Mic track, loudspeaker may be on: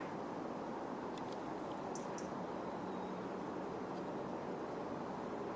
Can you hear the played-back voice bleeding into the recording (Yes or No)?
No